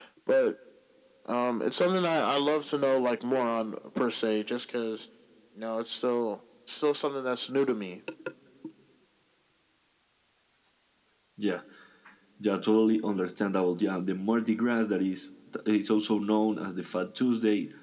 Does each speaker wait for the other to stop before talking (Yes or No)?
Yes